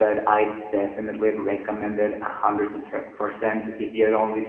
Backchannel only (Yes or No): Yes